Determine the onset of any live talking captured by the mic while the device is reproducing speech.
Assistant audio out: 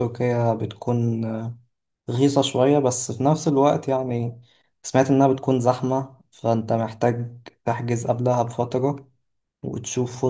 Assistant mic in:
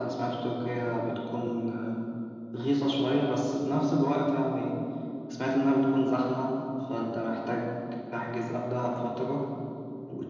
none

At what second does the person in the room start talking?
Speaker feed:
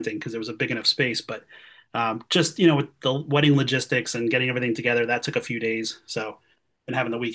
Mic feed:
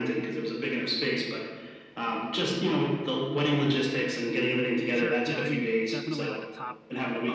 4.9 s

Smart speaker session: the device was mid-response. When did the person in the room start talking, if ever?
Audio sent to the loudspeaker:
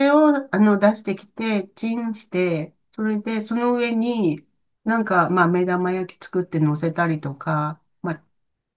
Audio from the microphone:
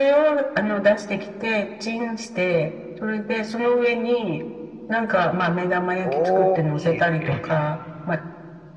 6.0 s

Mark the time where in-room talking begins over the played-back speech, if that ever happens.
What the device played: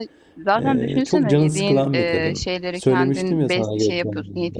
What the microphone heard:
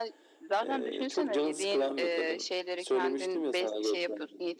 none

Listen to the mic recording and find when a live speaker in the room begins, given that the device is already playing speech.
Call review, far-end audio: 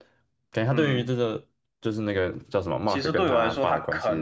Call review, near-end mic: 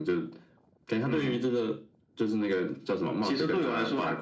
none

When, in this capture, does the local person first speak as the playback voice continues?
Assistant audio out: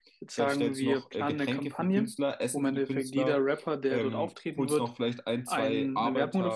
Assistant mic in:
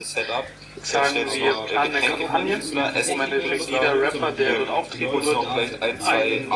1.2 s

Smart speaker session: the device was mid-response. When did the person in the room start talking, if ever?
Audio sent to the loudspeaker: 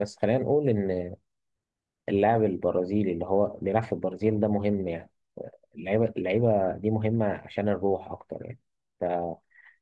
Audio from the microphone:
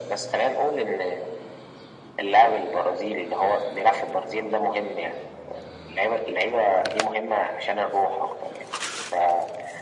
none

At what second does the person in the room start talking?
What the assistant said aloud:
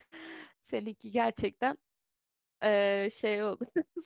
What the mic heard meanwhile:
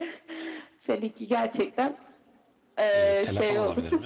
2.9 s

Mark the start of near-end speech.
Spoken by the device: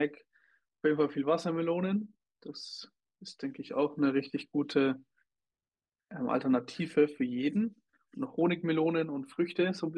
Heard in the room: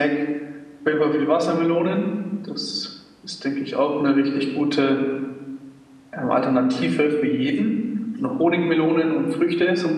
none

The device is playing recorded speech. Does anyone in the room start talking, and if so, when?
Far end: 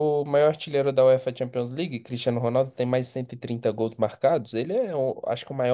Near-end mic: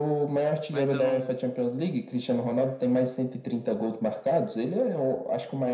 0.7 s

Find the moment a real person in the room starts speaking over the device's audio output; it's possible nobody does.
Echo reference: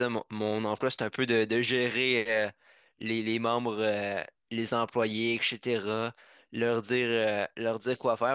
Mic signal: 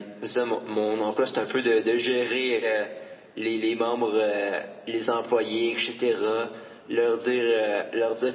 none

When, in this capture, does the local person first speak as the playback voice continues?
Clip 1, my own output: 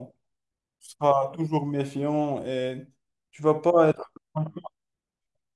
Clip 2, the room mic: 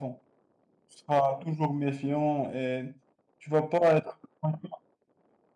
none

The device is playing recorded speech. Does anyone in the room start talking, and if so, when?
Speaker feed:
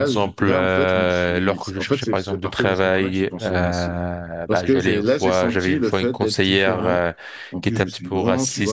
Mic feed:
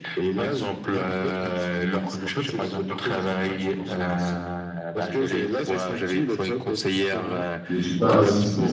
7.6 s

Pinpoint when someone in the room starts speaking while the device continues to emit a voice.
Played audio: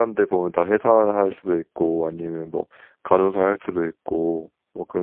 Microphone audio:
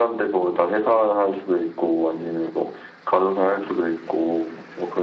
none

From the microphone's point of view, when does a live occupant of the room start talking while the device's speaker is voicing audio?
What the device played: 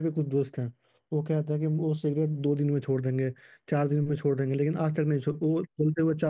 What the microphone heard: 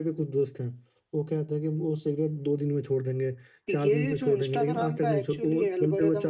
3.7 s

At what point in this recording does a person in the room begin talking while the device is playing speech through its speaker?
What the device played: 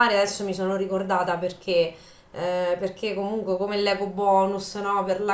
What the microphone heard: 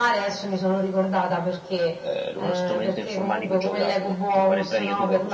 2.0 s

